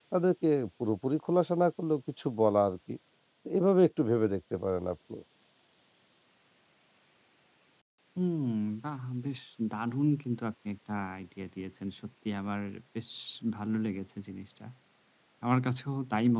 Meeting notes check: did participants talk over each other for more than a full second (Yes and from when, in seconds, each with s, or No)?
No